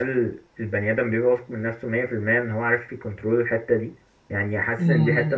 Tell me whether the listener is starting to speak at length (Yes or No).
No